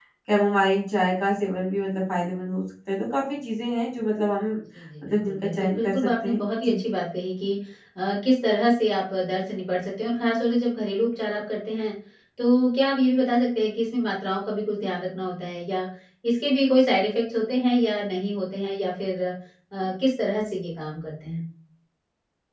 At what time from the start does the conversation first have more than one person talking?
5.1 s

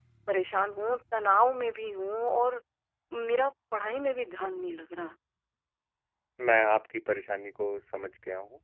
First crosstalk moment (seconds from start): none

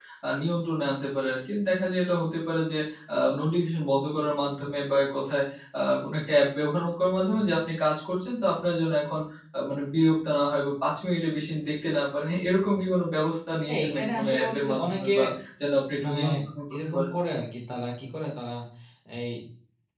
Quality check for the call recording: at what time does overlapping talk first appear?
13.7 s

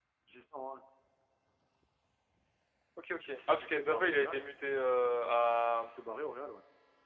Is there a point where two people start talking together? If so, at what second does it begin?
3.3 s

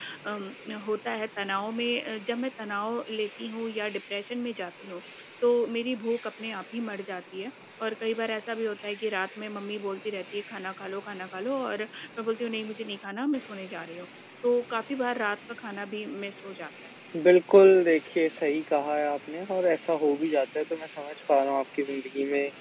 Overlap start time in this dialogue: none

